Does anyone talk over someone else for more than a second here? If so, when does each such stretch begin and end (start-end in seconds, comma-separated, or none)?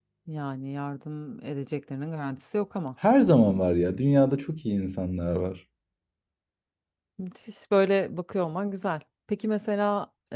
none